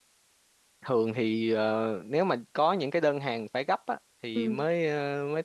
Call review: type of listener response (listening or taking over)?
listening